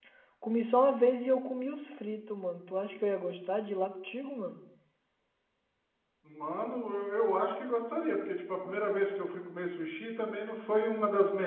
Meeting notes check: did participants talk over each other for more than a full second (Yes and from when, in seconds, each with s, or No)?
No